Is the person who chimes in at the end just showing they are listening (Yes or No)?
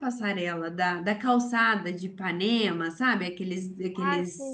No